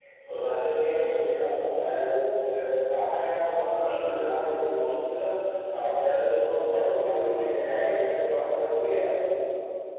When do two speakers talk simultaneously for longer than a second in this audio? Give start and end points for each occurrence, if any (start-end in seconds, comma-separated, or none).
none